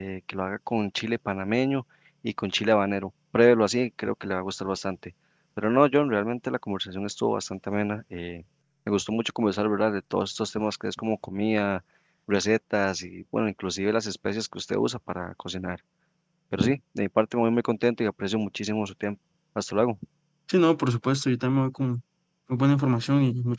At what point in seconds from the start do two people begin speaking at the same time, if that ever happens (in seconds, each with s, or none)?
none